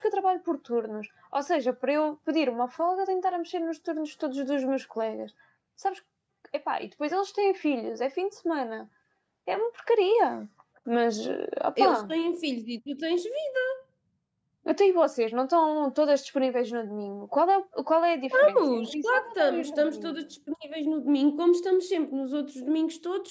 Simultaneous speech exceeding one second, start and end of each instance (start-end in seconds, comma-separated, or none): 18.4-20.1